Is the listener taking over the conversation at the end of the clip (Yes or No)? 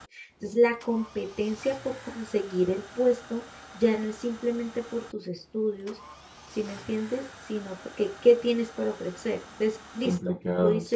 Yes